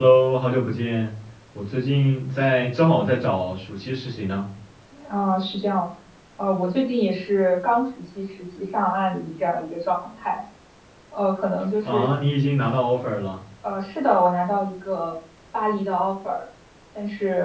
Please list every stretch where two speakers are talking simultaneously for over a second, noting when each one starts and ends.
none

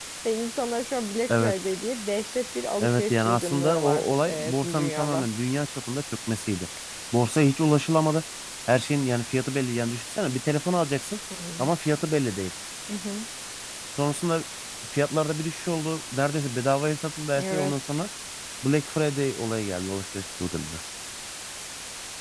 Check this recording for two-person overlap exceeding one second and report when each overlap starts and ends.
2.8-5.3

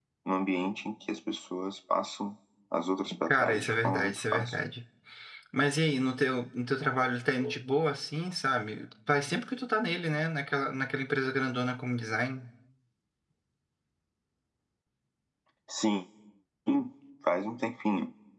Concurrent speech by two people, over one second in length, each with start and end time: 3.3-4.5

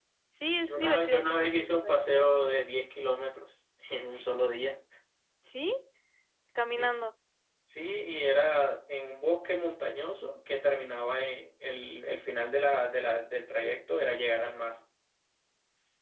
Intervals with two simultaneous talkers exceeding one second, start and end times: 0.6-2.3

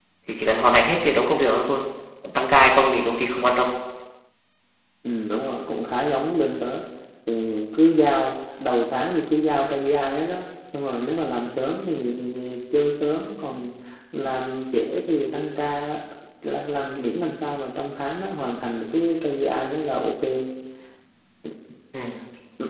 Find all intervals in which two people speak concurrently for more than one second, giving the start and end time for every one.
none

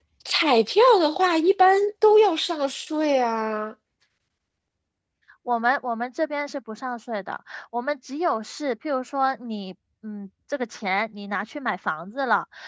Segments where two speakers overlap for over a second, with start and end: none

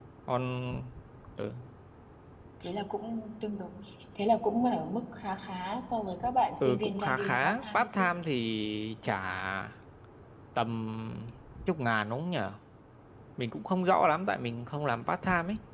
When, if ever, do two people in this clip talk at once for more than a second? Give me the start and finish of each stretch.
6.7-8.1

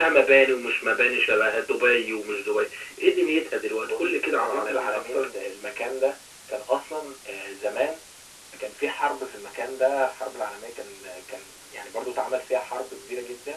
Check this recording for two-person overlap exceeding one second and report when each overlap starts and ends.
3.6-5.3

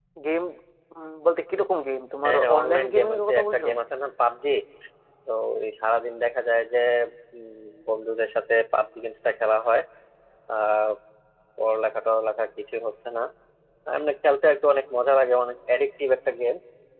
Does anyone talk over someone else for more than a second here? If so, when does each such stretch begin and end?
2.2-3.7

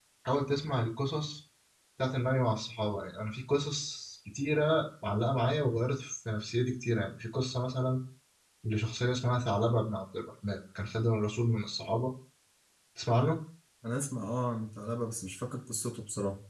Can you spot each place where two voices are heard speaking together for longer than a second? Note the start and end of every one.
none

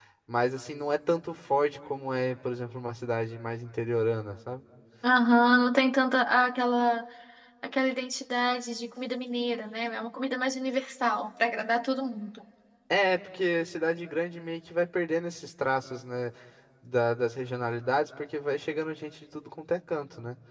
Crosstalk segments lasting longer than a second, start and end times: none

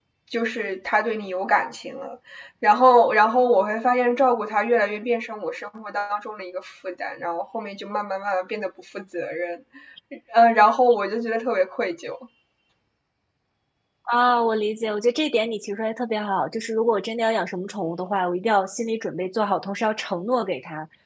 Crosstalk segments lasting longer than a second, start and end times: none

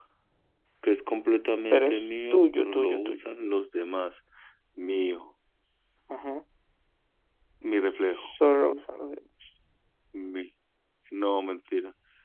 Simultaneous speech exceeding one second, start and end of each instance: 1.7-3.2

